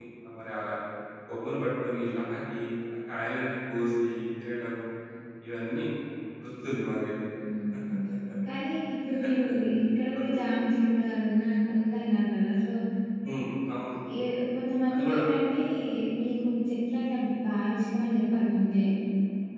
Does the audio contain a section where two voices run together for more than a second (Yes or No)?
No